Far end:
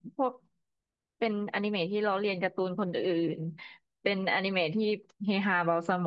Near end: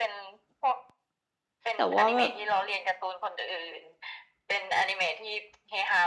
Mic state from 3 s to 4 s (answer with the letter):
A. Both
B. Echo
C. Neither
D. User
B